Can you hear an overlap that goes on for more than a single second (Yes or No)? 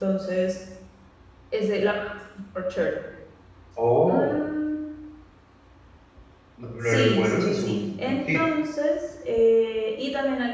Yes